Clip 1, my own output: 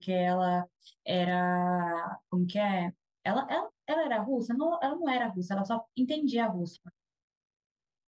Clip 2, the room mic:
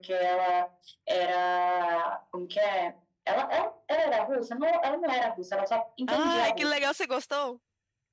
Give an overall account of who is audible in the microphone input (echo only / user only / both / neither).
both